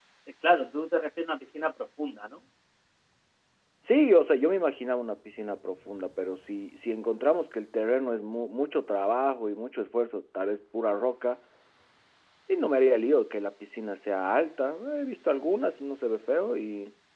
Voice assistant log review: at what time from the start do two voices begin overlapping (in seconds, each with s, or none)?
none